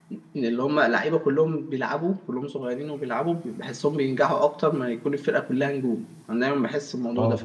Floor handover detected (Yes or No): No